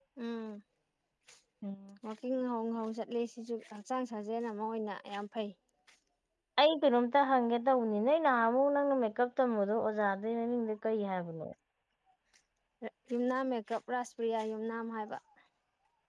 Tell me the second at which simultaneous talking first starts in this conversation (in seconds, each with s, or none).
none